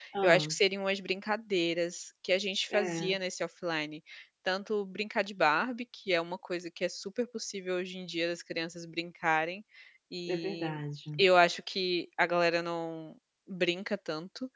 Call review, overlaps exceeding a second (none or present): none